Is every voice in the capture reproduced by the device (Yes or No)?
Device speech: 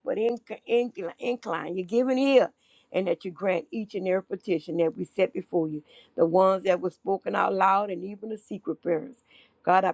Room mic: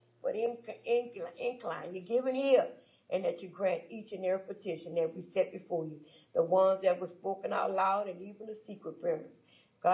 Yes